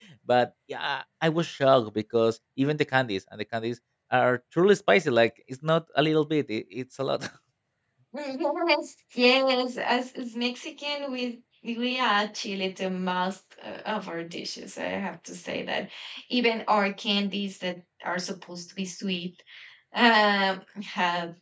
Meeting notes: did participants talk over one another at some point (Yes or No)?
No